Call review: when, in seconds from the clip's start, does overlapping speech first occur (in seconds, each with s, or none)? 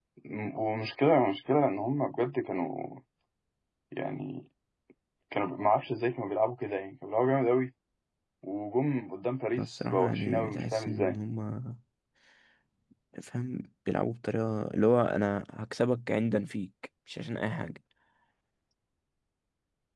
9.5 s